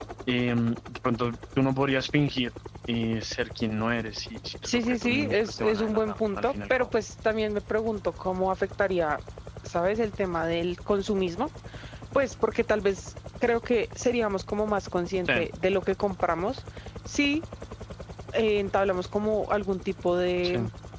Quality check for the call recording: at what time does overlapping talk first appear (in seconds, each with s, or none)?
4.6 s